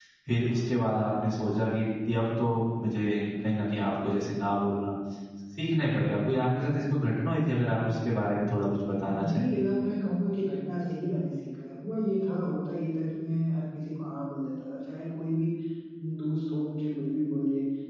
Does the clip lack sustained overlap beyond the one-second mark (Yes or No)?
Yes